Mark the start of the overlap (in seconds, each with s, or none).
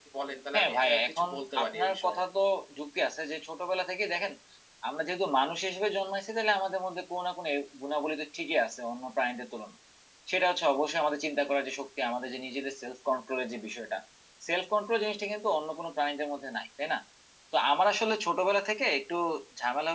0.5 s